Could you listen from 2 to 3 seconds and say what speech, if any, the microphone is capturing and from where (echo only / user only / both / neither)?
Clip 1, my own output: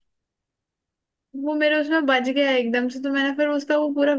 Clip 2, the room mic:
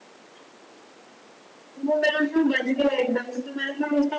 echo only